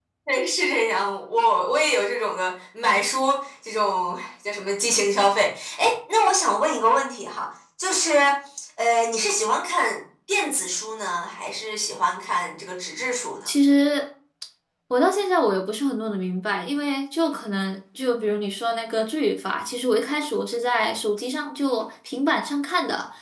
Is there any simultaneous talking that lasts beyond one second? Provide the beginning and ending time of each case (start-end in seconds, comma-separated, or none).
none